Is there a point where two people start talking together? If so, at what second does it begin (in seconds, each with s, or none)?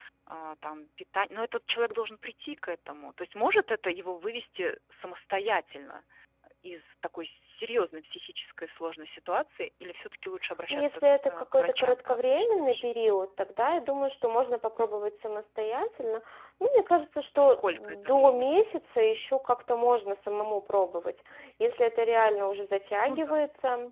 10.7 s